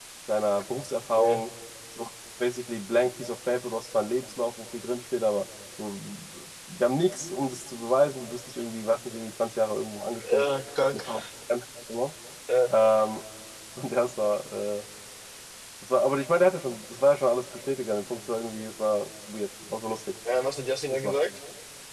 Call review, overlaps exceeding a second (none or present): none